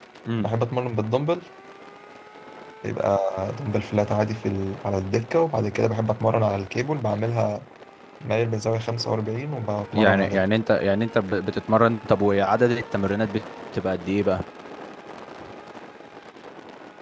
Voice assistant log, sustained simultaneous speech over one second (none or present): none